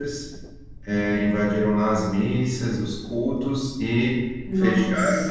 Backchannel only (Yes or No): Yes